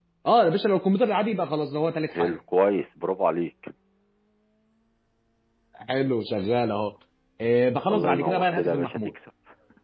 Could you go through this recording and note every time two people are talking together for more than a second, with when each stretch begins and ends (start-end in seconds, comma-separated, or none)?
7.9-9.1